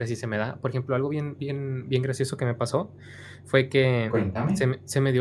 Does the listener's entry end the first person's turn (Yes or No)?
No